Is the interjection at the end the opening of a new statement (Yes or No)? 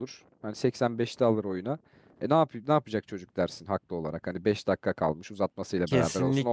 Yes